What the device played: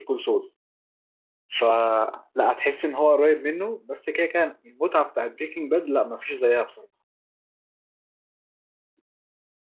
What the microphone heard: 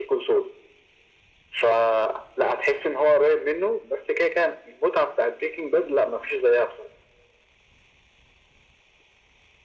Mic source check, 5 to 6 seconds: echo only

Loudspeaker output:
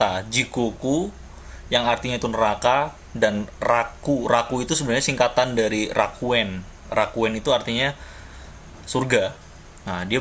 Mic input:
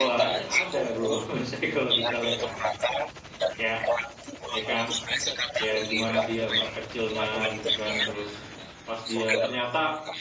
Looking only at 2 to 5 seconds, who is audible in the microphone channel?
both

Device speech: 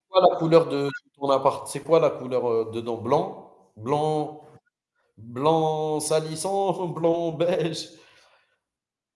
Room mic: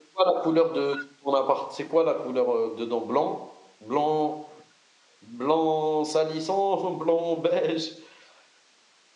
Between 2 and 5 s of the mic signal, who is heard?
echo only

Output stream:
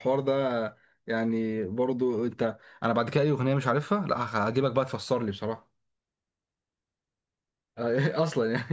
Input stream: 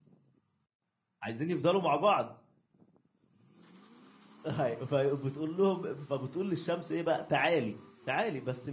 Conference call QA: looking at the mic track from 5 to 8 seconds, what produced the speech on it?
user only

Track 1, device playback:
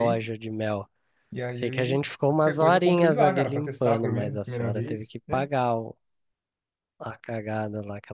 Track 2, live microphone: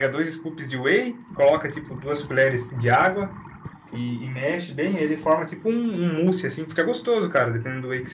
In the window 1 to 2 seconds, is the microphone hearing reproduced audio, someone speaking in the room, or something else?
user only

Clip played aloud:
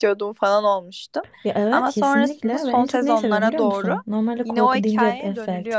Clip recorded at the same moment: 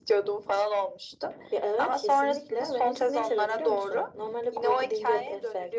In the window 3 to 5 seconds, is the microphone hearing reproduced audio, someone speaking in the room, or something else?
echo only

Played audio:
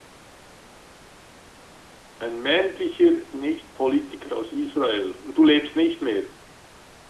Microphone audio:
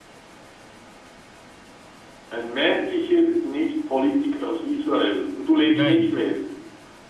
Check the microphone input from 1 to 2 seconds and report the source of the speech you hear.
neither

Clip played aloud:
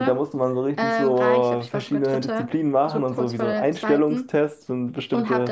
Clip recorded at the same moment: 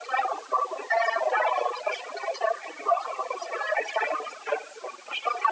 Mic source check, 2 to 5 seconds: echo only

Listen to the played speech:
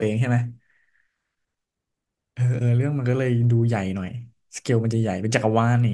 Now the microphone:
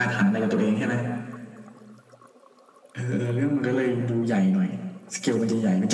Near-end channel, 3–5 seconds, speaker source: echo only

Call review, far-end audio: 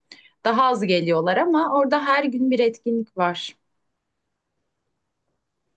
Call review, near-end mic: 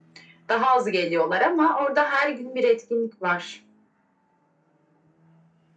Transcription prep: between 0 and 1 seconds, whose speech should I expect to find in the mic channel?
echo only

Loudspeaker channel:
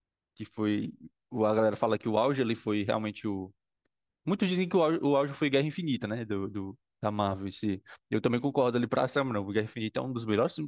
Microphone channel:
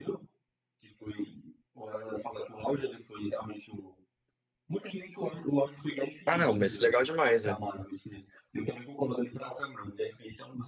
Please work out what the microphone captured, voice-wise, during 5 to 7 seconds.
both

